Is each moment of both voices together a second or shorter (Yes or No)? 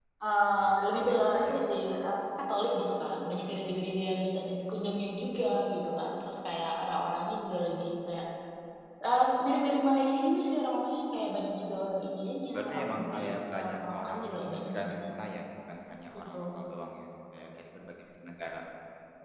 No